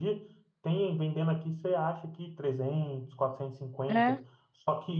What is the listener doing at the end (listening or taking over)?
listening